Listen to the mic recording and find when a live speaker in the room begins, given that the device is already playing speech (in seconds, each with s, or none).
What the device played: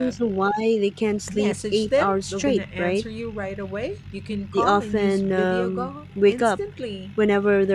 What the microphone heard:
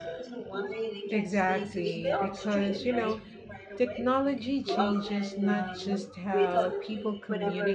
1.1 s